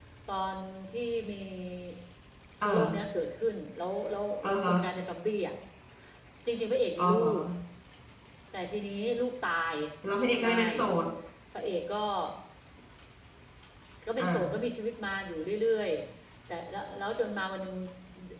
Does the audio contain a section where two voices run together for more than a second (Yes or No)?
No